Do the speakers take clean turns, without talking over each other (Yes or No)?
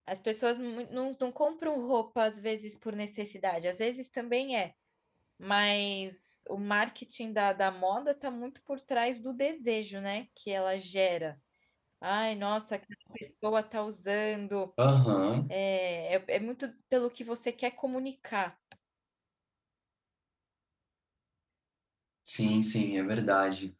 Yes